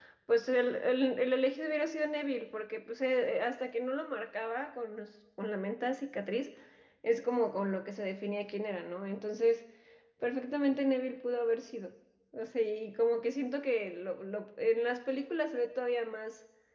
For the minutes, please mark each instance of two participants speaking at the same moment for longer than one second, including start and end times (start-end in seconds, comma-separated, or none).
none